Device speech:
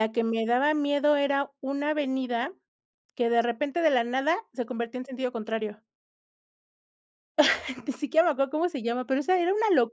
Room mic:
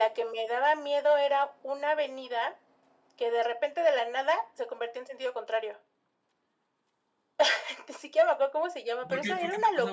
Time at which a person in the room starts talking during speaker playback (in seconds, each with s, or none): 9.0 s